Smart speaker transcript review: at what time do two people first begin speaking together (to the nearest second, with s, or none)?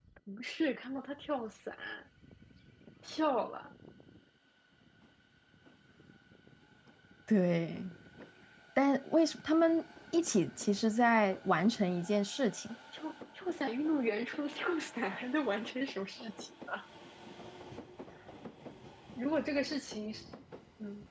none